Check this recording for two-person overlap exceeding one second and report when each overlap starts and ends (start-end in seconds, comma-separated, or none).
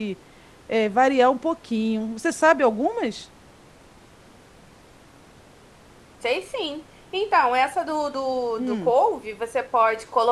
none